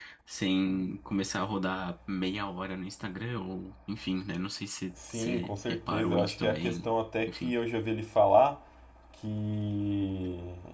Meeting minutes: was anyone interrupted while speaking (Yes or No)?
Yes